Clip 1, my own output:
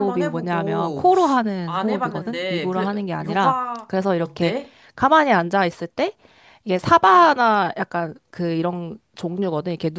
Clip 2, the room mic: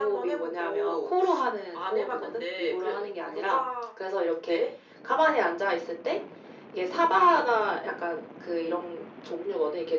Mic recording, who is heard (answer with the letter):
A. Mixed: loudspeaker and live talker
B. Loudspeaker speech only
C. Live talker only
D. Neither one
B